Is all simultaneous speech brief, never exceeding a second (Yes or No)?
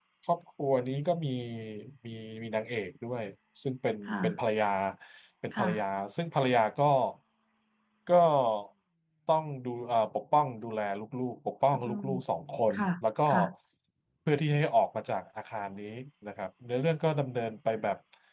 Yes